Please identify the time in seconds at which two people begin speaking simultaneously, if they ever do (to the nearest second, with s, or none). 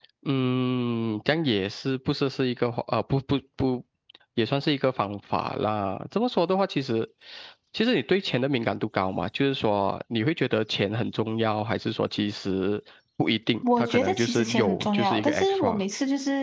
14 s